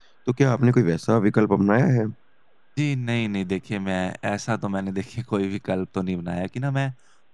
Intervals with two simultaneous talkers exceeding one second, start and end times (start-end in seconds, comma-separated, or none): none